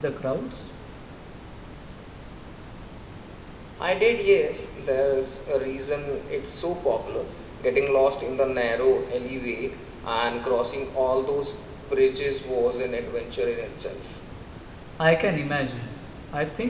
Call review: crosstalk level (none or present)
none